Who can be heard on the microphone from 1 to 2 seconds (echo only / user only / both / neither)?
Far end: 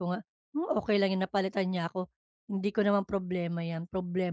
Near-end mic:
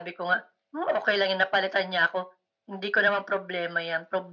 echo only